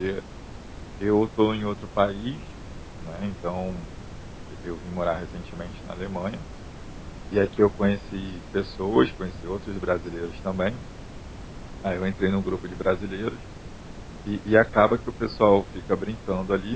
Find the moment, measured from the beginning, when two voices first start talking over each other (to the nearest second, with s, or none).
none